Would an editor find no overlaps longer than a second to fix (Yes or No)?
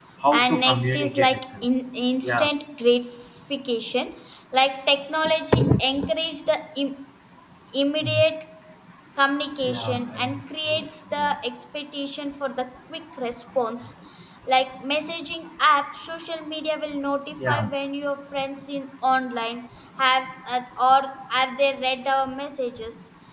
No